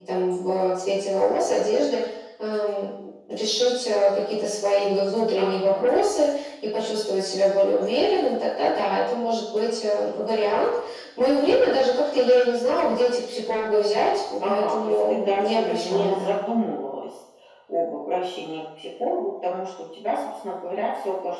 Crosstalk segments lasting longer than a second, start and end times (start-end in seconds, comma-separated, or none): 14.4-16.3